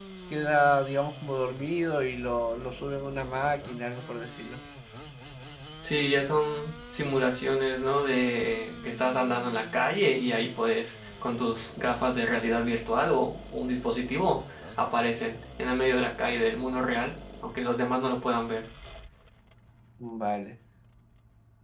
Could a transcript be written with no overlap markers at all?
Yes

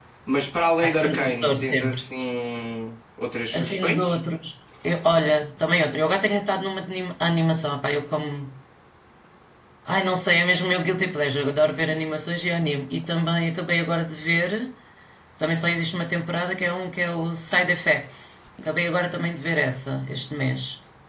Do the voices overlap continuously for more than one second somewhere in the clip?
Yes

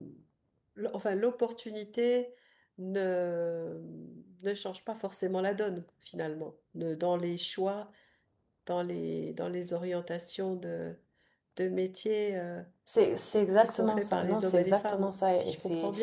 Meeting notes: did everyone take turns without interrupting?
No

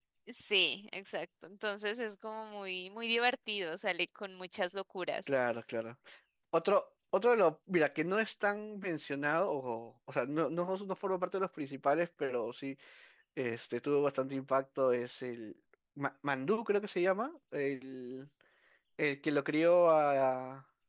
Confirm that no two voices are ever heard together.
Yes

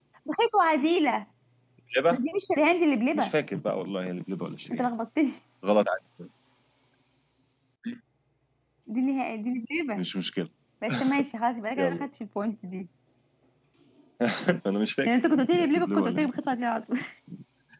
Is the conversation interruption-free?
No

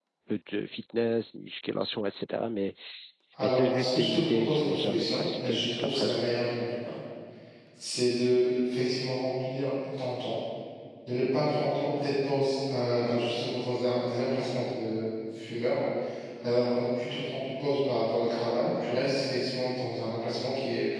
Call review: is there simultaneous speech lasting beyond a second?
Yes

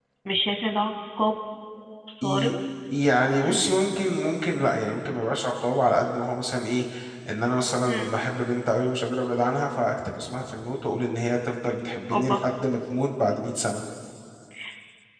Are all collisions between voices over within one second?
Yes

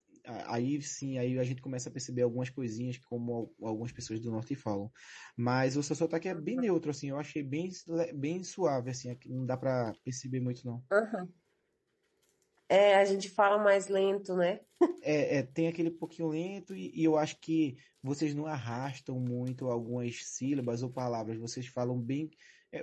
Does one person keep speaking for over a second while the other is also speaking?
No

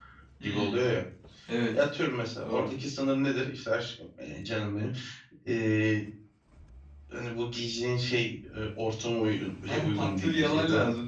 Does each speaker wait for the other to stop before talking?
No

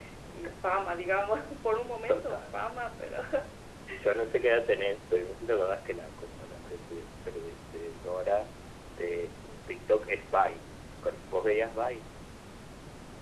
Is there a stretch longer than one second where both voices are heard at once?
No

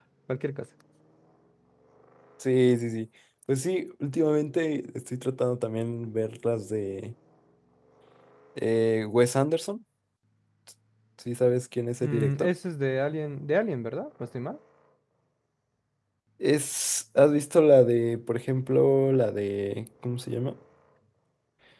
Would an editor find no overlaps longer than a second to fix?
Yes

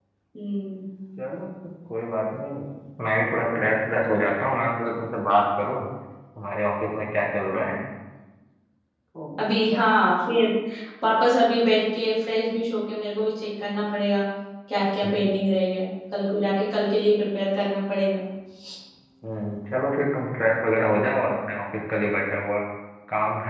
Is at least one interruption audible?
No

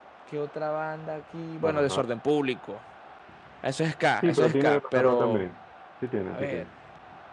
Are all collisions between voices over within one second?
No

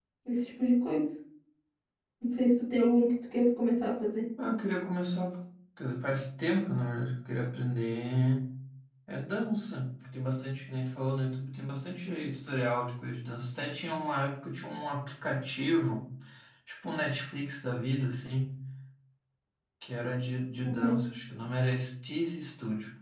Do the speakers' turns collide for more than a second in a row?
No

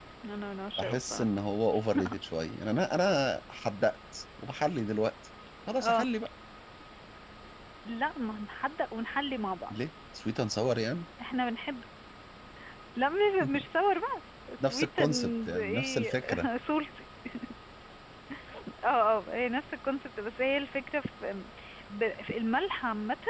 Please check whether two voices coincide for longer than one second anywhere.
Yes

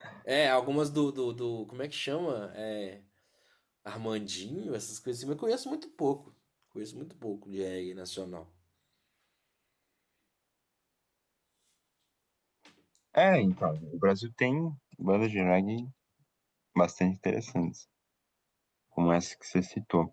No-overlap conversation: Yes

